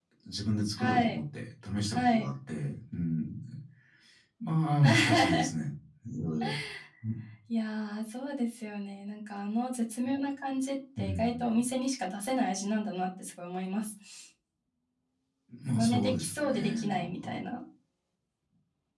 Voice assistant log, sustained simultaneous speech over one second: present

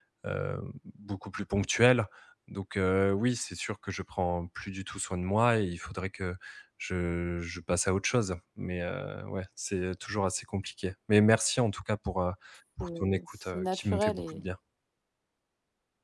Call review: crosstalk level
present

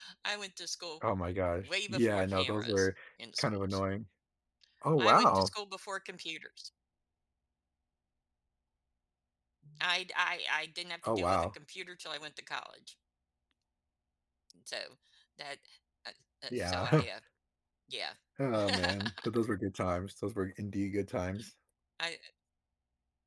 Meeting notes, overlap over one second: present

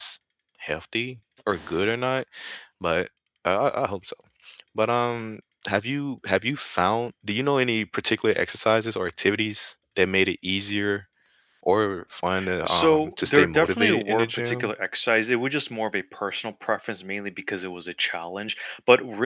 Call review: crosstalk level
present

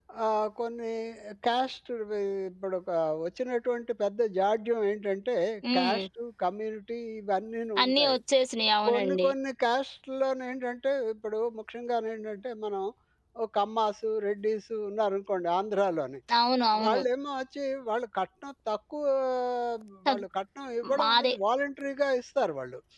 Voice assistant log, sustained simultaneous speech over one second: none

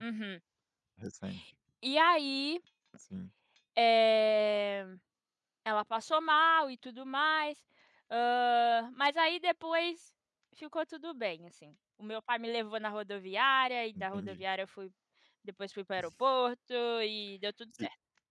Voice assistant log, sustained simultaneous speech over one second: none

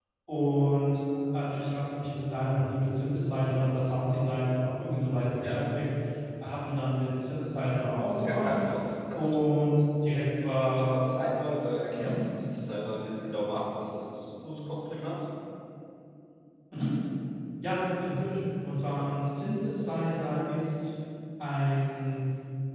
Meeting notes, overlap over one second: none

